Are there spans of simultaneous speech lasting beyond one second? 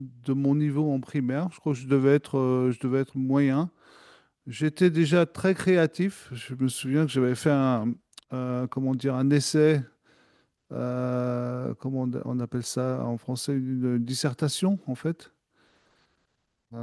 No

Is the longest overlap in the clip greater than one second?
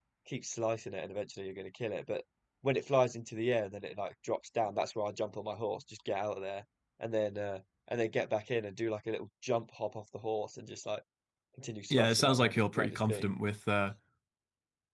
Yes, from 11.9 s

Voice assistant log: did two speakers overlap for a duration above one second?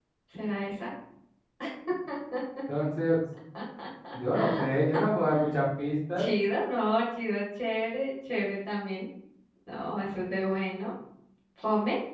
No

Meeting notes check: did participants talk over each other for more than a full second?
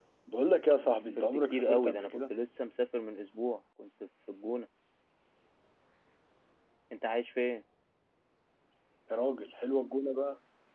Yes, from 0.8 s

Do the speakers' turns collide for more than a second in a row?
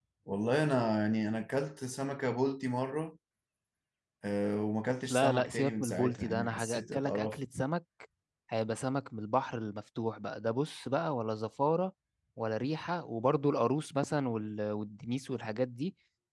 Yes, from 5.1 s

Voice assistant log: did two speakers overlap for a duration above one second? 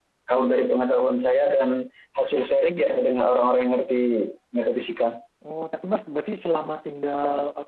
No

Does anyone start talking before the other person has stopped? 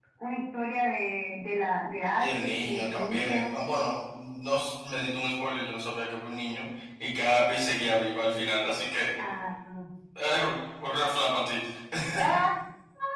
Yes, from 2.2 s

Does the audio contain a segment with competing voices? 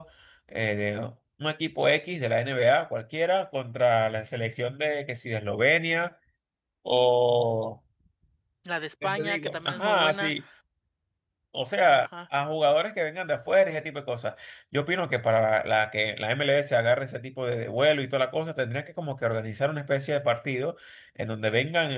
Yes, from 9.0 s

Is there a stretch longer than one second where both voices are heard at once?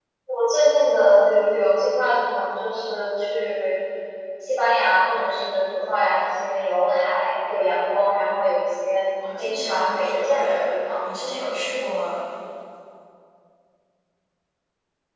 Yes, from 9.2 s

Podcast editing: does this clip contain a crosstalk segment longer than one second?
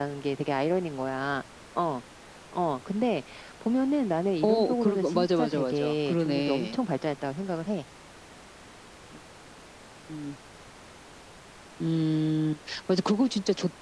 Yes, from 4.4 s

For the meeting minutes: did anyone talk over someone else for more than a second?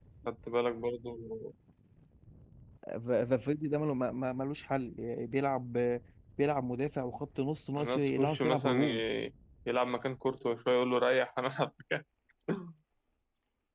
Yes, from 7.8 s

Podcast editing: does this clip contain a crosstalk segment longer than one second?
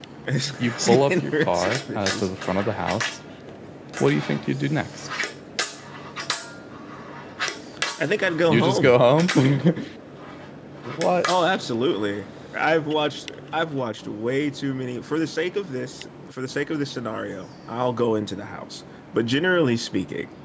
Yes, from 0.6 s

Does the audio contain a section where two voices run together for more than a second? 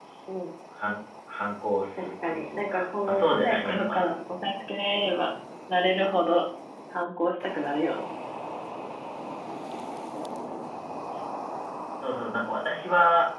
Yes, from 2.0 s

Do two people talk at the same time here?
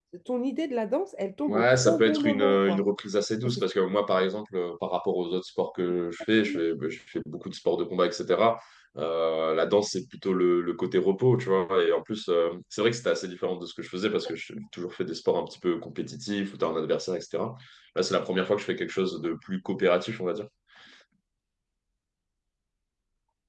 Yes, from 1.5 s

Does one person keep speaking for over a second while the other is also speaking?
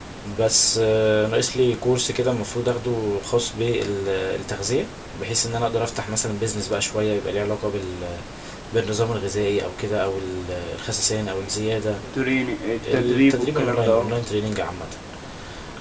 Yes, from 12.9 s

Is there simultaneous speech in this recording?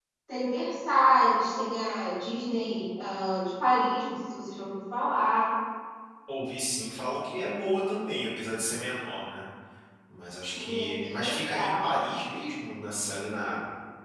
Yes, from 10.4 s

